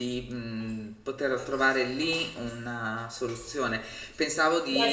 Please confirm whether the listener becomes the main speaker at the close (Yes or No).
Yes